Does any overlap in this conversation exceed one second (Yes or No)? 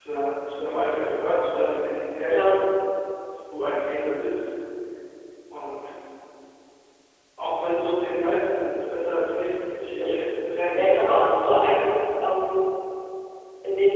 Yes